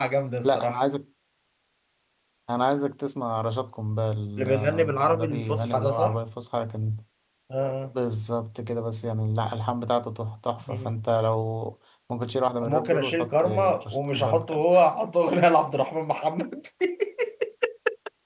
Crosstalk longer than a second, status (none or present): present